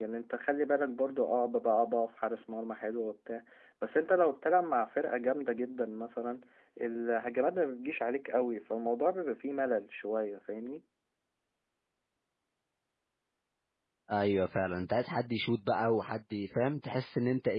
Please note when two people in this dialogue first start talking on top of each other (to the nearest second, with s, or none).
none